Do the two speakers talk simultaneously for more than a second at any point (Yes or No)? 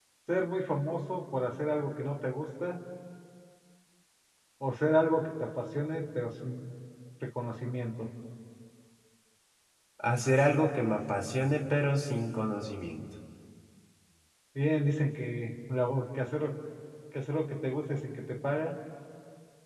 No